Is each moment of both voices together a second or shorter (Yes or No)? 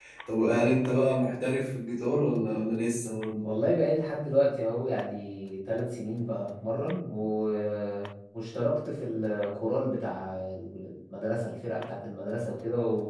Yes